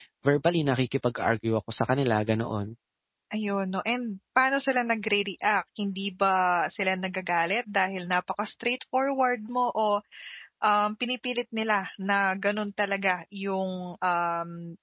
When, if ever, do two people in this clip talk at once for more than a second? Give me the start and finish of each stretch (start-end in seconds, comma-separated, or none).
none